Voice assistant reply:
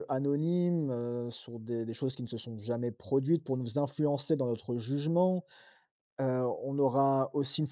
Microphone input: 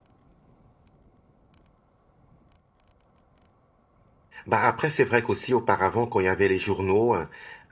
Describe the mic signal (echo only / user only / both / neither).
user only